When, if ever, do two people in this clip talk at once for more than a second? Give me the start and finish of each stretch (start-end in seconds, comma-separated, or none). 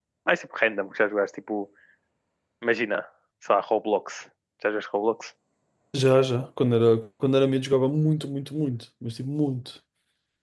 none